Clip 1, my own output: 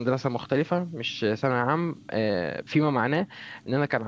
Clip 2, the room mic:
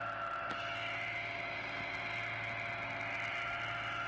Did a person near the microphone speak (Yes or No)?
No